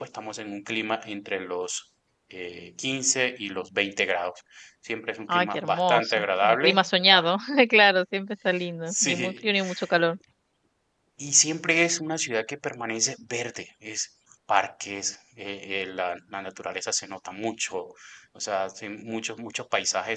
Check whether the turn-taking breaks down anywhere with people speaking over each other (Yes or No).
Yes